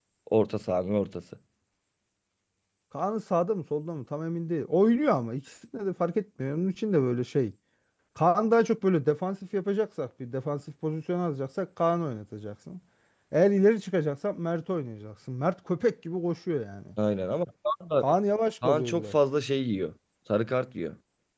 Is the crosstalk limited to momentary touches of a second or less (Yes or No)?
Yes